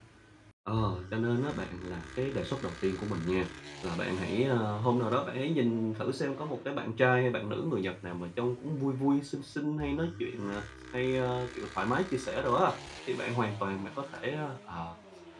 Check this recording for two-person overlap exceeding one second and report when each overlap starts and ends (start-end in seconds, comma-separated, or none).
none